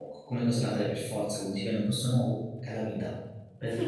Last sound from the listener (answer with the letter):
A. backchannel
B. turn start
B